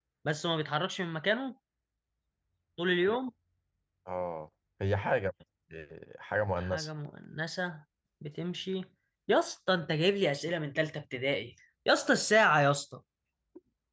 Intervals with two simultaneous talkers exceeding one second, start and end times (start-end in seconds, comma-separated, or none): none